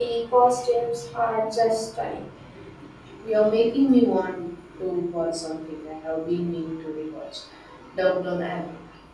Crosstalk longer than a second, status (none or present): none